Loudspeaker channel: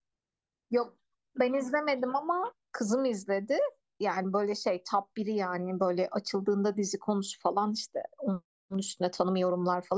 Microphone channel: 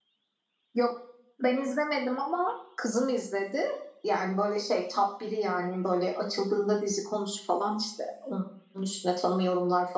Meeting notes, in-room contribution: none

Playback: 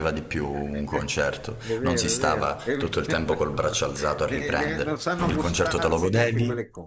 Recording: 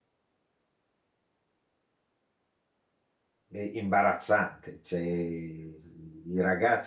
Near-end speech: present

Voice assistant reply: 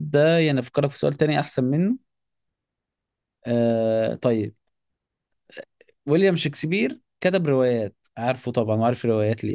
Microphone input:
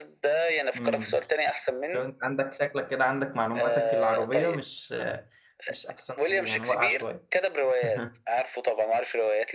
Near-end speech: present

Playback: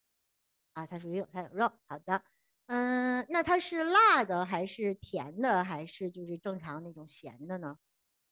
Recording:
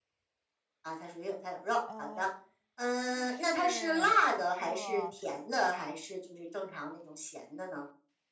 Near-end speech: present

